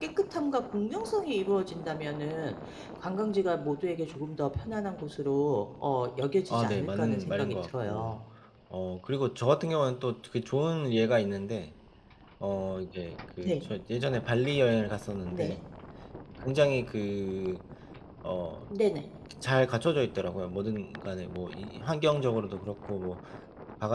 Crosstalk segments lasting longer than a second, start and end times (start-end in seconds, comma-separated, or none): 6.5-8.2